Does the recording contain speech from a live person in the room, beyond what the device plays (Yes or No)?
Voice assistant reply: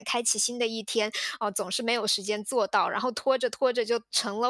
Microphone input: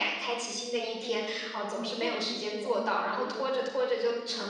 Yes